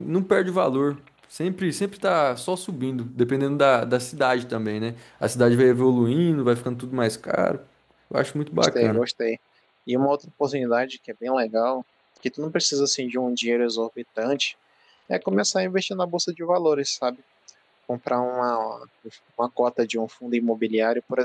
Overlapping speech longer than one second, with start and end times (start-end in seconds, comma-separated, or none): none